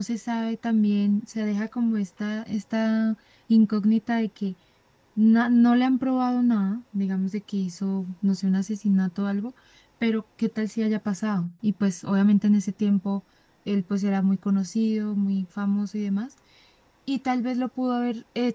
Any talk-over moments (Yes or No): No